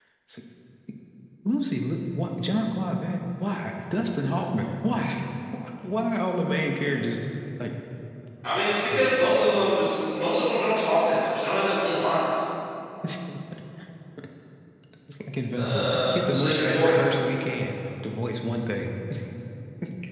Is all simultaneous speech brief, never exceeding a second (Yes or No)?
No